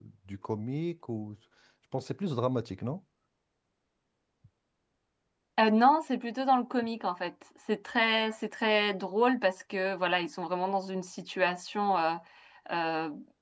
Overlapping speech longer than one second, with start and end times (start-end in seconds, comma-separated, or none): none